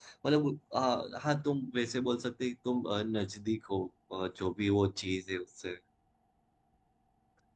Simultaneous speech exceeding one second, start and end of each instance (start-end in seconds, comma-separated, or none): none